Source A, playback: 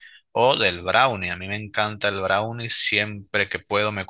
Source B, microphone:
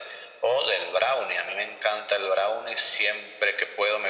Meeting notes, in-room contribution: none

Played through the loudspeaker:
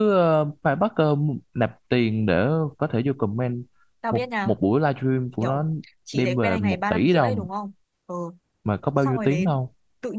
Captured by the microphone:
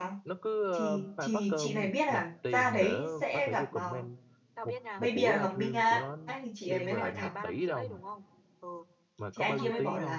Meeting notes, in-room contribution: present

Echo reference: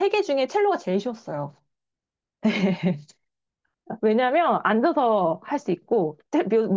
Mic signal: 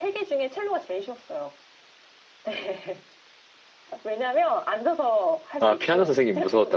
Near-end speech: present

